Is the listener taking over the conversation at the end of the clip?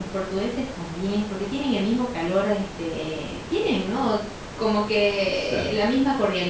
No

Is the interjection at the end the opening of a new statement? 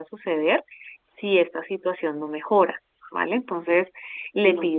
No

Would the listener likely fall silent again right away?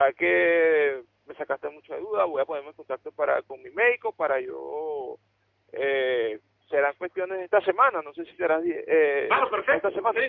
No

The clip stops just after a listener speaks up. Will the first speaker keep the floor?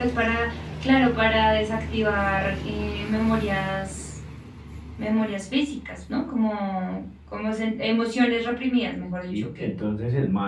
No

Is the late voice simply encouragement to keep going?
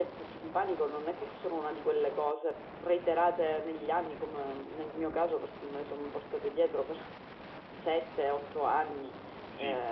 Yes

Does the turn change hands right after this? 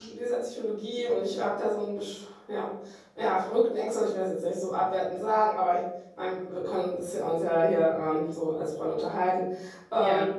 No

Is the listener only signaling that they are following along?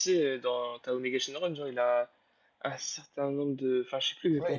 No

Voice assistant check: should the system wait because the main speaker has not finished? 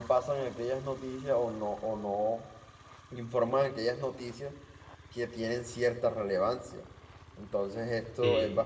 Yes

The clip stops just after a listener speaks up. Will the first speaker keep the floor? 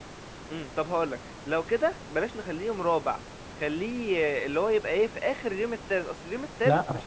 No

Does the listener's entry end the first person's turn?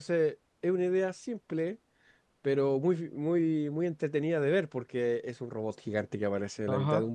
Yes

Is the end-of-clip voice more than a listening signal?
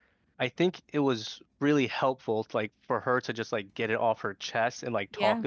No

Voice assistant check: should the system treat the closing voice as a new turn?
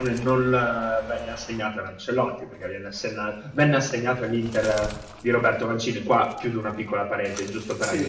Yes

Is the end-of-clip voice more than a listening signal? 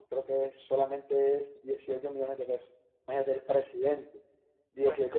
No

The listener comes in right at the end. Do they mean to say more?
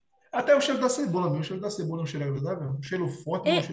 Yes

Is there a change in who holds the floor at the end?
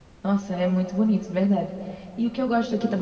No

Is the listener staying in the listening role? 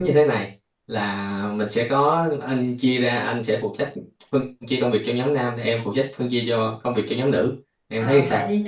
No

